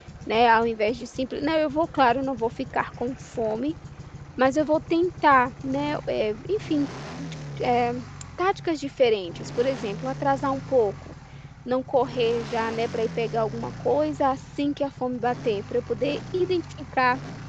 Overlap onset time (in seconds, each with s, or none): none